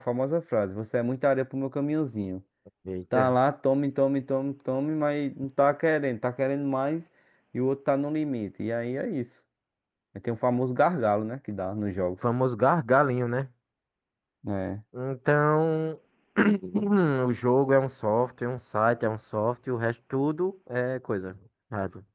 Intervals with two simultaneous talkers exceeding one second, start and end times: none

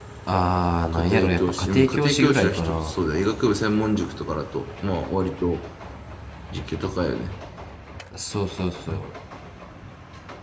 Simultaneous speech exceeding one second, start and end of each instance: 0.9-2.9

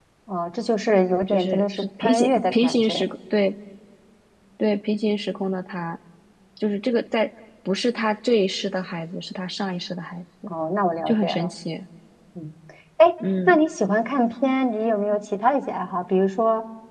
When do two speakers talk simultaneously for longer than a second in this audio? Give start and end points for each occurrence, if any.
1.3-3.0

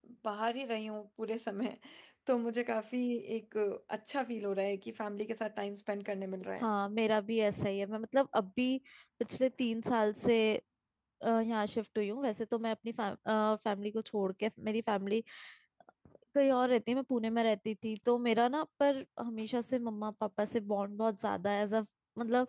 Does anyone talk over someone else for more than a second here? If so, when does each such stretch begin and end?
none

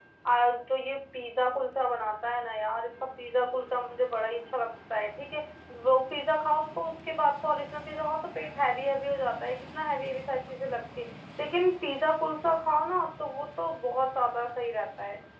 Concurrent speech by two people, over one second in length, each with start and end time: none

